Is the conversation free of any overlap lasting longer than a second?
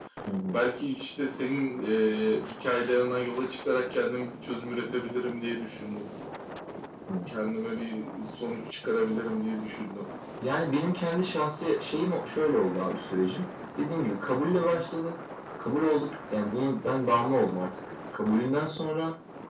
Yes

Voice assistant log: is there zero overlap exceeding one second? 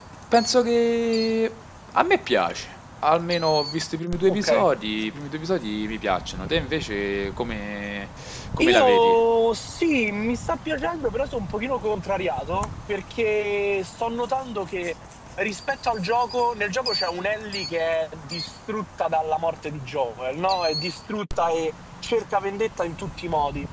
Yes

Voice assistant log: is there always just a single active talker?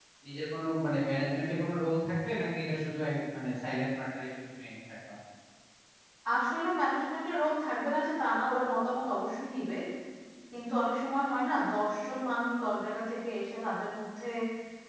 Yes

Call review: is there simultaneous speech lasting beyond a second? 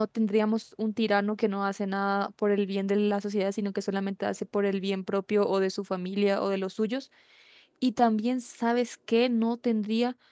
No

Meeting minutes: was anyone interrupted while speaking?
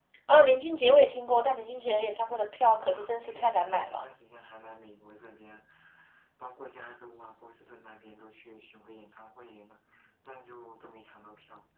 Yes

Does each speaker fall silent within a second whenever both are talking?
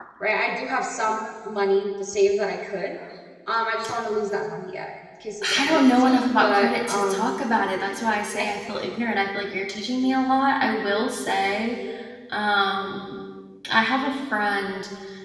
No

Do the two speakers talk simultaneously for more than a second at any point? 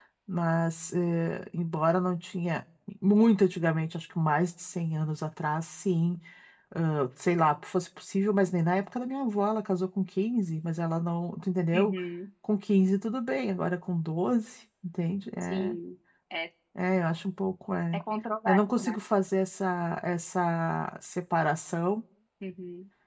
No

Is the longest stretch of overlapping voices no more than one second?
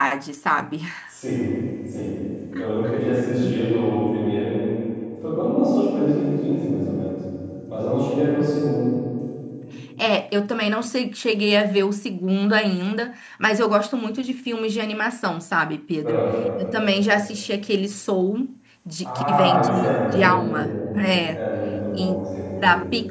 No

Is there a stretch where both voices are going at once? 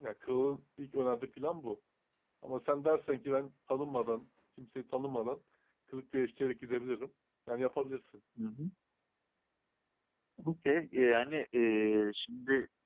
No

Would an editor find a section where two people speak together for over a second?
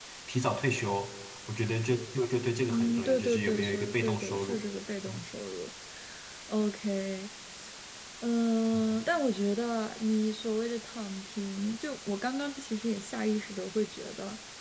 Yes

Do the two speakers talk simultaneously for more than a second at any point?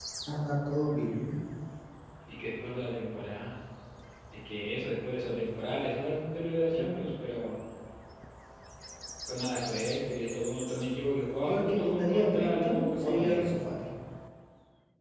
Yes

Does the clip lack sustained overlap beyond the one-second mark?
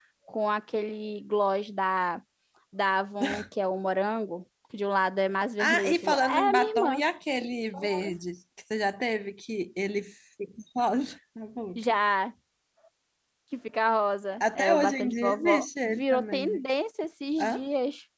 No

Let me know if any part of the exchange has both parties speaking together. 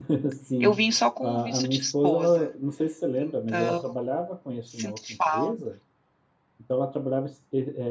Yes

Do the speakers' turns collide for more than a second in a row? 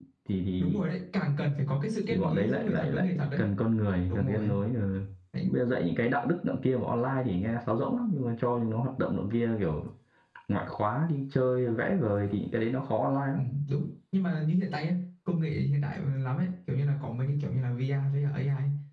Yes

